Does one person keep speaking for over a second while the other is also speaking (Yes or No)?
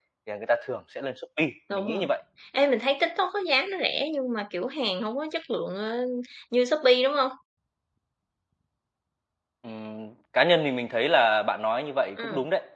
No